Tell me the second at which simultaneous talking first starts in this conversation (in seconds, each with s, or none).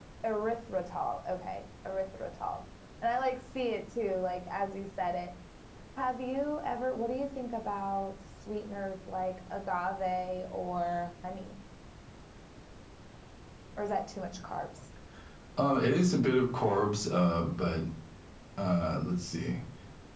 none